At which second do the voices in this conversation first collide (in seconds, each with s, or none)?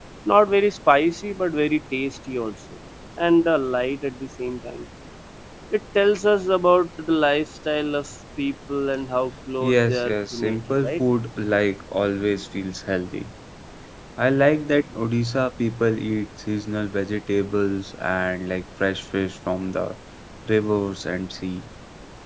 9.6 s